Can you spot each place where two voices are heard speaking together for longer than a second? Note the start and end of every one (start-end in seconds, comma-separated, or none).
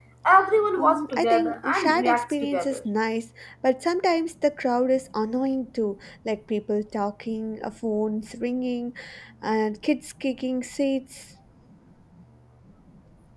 0.8-2.8